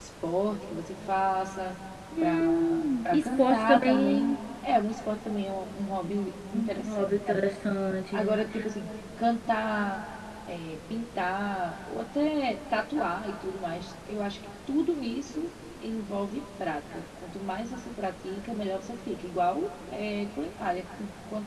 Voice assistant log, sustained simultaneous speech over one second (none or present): present